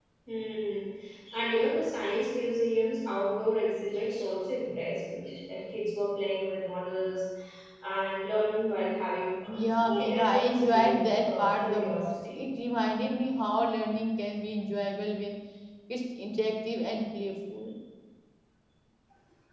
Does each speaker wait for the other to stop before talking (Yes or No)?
No